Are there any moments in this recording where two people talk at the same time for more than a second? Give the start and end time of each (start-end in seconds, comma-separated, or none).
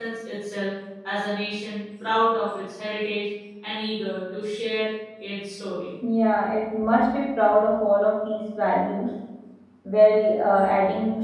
none